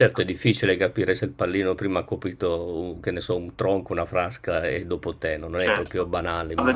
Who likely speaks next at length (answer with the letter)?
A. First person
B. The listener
B